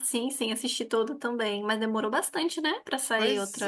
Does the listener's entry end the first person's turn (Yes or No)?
Yes